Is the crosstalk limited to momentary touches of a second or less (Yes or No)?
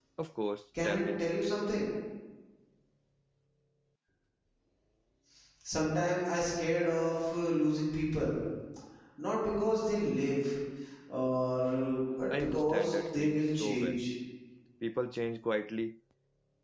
No